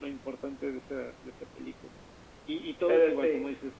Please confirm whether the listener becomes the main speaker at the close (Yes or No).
No